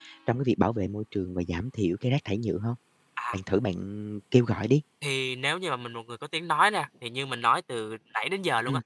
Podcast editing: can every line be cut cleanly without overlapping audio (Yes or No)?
Yes